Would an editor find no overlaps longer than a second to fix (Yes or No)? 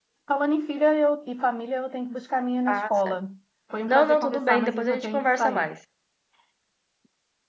No